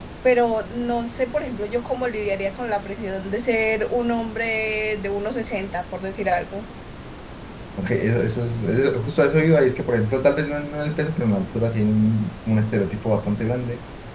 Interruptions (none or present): none